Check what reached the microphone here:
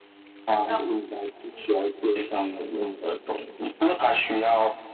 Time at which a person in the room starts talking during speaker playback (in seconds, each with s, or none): 0.6 s